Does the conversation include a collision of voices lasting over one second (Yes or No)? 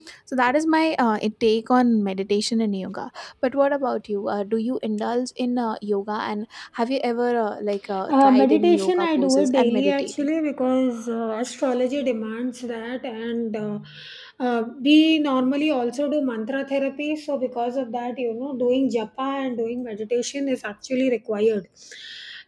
Yes